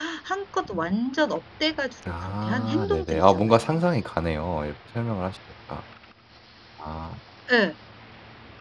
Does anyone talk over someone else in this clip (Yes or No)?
Yes